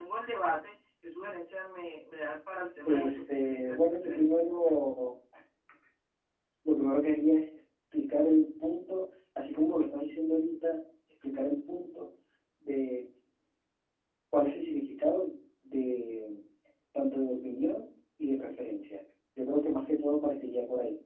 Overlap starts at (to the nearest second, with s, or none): 3 s